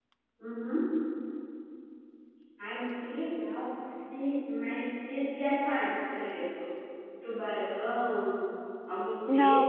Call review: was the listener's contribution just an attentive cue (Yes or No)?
No